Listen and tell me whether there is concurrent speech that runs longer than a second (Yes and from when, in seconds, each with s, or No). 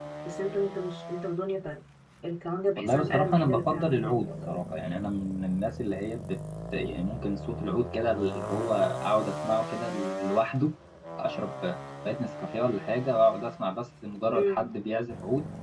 Yes, from 2.8 s